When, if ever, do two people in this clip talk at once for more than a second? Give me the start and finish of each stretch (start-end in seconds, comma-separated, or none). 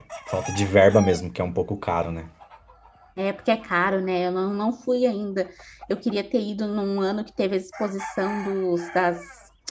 none